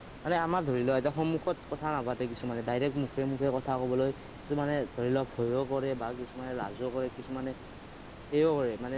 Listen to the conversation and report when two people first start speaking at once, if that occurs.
none

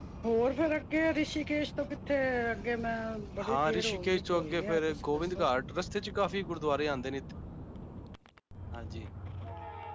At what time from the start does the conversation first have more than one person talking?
3.5 s

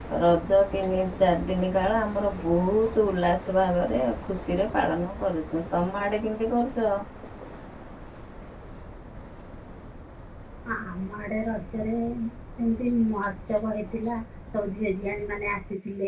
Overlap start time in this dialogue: none

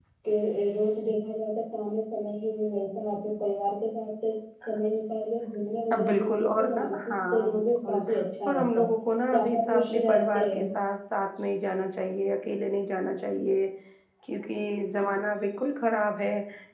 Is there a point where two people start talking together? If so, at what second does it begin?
6.1 s

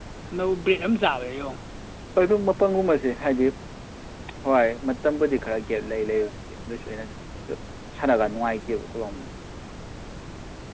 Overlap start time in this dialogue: none

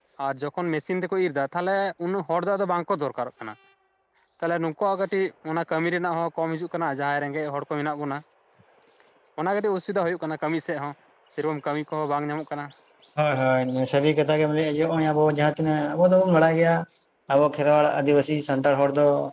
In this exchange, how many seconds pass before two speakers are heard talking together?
none

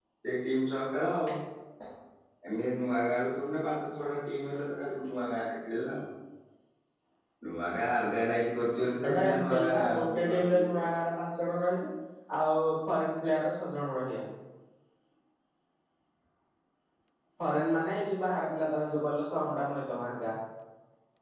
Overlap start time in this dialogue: 9.0 s

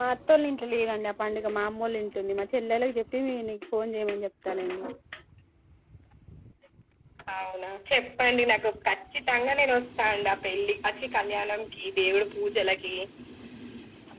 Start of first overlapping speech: none

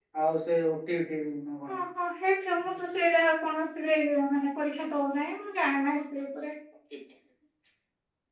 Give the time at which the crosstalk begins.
none

